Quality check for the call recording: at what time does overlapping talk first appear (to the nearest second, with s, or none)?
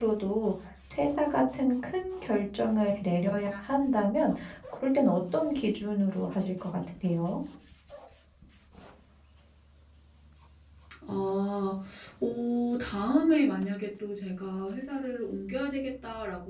none